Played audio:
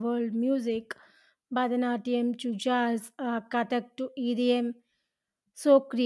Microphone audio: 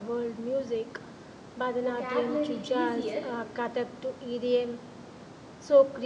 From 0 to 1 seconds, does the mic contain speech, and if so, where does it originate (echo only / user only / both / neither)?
echo only